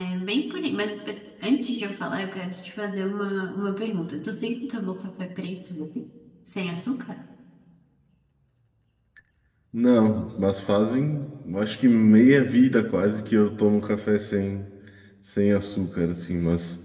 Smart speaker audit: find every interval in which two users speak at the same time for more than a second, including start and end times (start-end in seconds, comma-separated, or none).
none